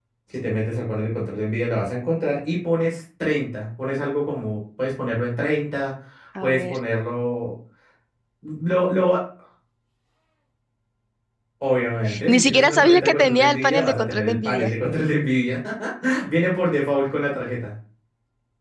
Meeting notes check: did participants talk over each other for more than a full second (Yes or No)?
Yes